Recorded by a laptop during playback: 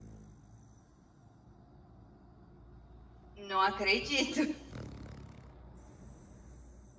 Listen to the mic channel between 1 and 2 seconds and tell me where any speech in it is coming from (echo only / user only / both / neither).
neither